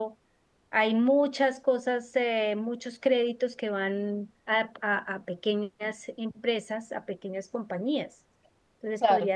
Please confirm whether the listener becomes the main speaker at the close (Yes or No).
No